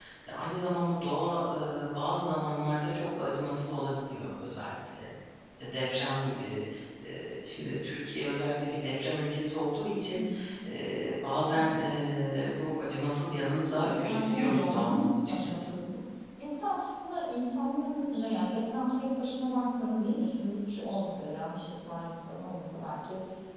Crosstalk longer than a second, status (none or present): present